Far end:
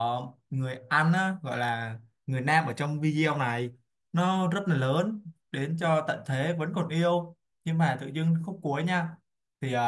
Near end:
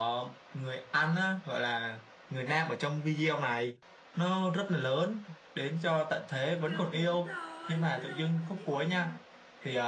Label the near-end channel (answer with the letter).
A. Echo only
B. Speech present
B